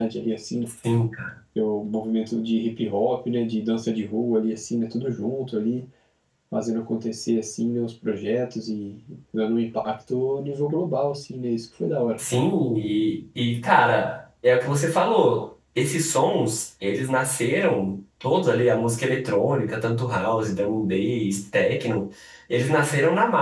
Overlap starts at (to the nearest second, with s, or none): none